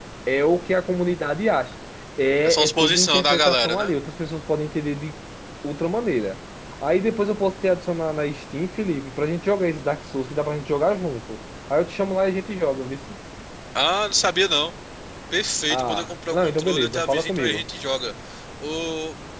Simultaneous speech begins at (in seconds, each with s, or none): 2.4 s